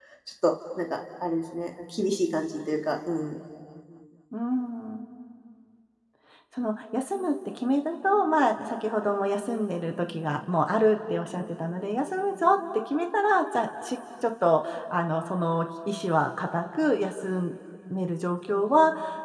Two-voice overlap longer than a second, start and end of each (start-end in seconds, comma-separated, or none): none